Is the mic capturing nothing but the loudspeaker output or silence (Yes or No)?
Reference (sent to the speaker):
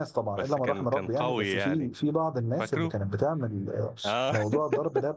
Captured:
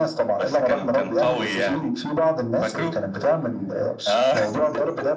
Yes